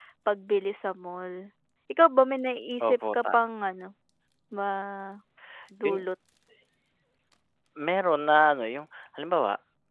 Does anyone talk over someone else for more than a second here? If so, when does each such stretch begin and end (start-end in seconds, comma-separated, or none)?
none